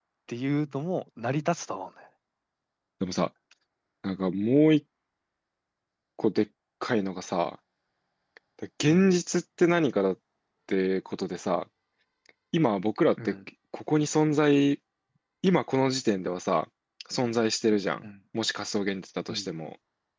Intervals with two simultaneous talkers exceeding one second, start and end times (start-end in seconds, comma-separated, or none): none